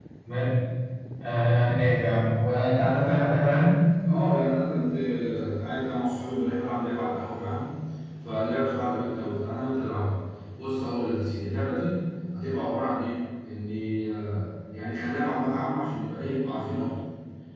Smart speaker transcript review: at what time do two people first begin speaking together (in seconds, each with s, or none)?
none